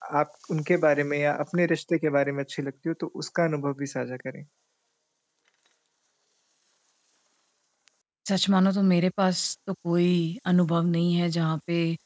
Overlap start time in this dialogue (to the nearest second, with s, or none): none